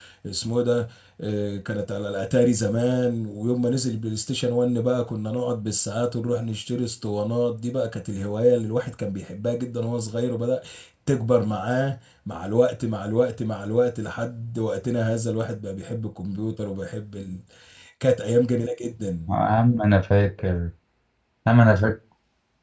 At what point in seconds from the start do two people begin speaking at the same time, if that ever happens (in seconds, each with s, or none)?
none